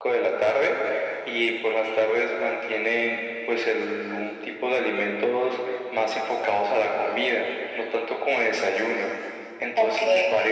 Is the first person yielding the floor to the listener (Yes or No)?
No